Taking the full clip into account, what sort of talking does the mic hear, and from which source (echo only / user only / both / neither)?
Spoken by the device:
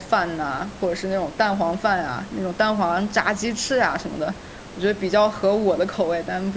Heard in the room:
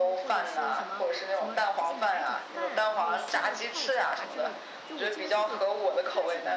both